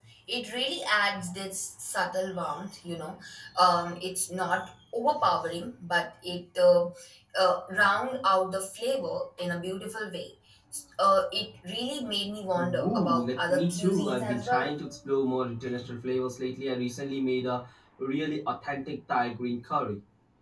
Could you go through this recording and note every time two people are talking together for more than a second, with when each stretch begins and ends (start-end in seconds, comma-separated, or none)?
12.5-14.8